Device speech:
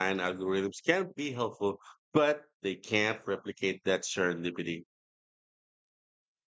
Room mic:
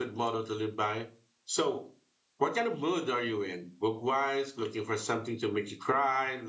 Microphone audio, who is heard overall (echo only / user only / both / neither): user only